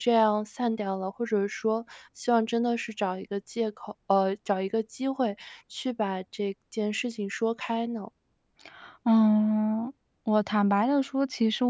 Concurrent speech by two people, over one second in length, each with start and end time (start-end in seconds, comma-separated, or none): none